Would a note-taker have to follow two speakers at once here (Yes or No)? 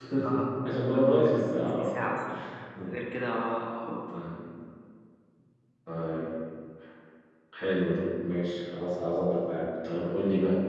Yes